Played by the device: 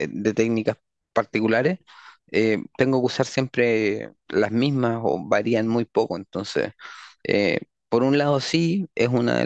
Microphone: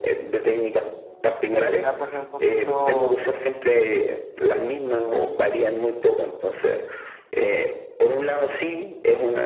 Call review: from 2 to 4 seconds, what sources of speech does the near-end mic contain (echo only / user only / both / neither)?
both